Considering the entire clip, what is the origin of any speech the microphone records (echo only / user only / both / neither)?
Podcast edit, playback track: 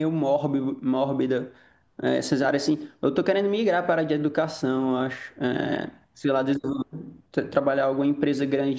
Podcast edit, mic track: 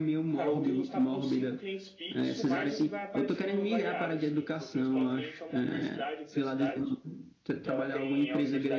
both